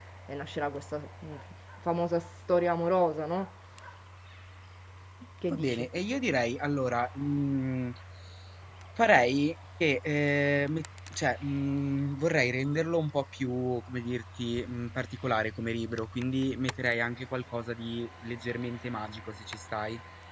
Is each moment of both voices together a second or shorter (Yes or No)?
Yes